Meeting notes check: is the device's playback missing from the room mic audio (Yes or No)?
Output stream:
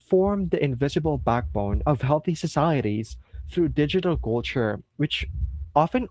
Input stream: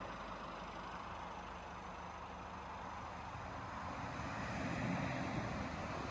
Yes